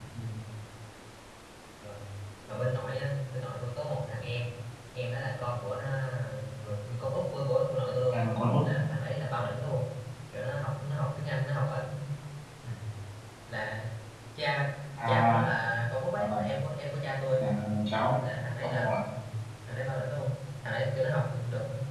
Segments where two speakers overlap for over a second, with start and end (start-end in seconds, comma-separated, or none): none